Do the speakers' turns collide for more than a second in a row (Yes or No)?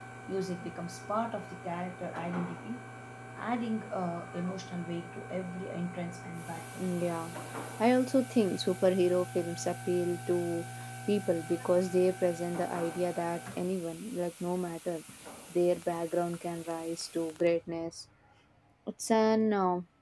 No